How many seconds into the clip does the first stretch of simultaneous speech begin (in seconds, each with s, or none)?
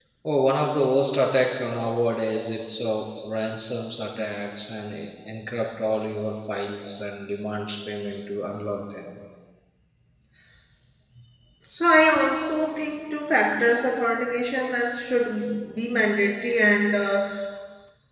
none